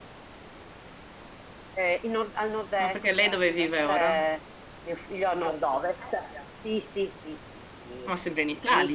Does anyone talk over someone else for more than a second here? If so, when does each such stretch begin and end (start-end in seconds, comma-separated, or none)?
2.8-4.2